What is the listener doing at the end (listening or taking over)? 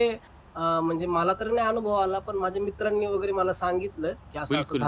taking over